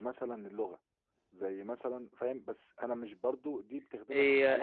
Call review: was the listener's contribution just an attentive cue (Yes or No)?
No